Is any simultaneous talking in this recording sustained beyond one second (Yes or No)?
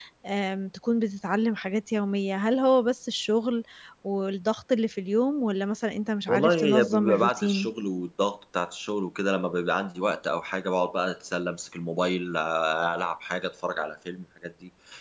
Yes